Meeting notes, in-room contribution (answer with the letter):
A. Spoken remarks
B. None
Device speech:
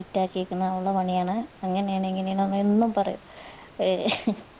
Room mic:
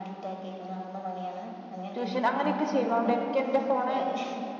A